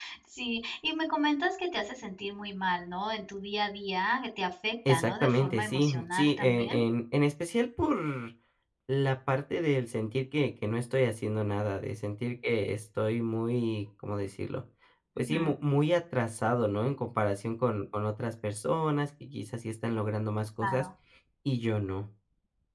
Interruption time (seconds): 4.9 s

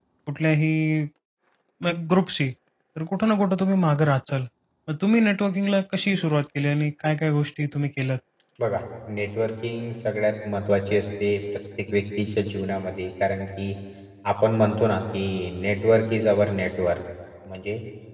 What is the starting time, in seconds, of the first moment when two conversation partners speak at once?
none

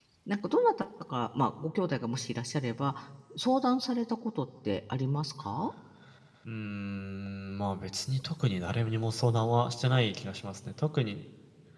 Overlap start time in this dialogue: none

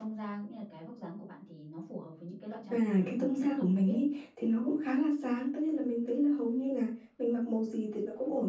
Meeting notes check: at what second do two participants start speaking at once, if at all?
2.7 s

